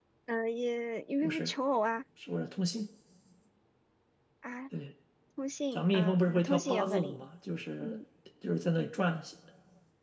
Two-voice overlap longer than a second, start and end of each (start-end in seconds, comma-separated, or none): 5.7-7.2